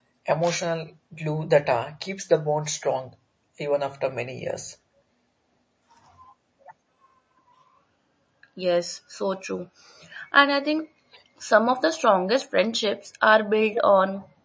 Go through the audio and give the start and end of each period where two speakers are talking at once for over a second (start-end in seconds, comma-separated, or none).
none